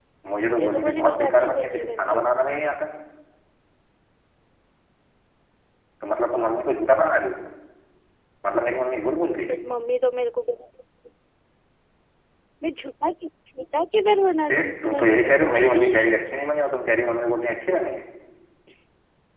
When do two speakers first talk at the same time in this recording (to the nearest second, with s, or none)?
1 s